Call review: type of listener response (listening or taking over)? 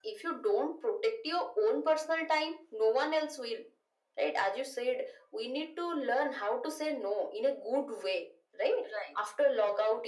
listening